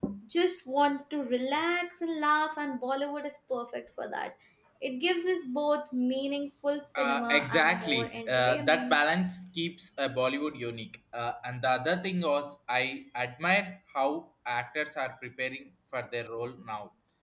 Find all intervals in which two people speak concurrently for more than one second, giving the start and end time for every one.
7.0-9.0

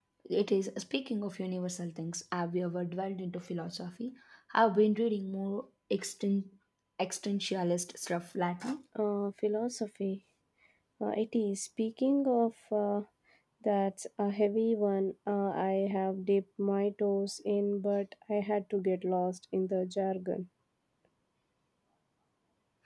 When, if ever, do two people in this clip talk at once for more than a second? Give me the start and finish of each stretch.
none

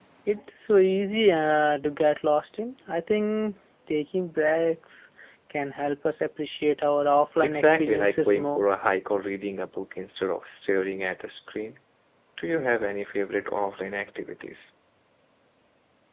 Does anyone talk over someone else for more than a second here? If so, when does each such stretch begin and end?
7.4-8.6

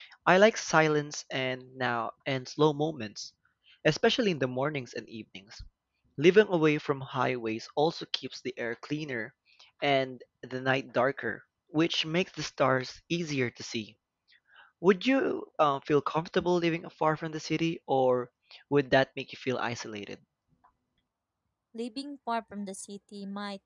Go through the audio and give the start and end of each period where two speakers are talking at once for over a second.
none

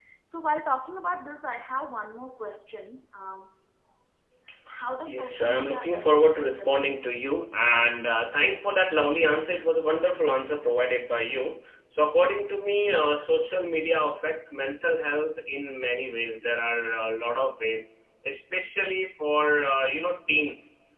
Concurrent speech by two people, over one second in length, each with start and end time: 5.1-7.0

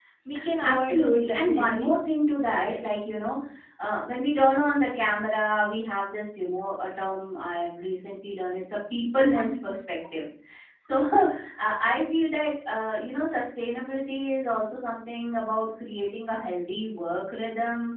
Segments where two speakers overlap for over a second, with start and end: 0.6-1.9

